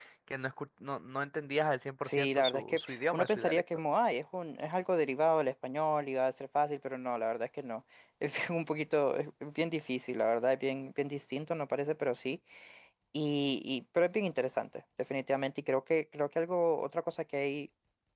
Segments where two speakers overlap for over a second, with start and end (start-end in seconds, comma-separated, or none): 2.0-3.6